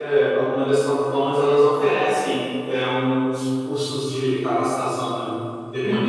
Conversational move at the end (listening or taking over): taking over